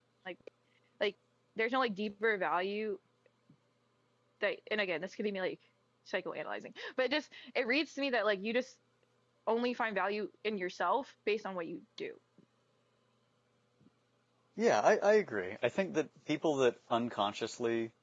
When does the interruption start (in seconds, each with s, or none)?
none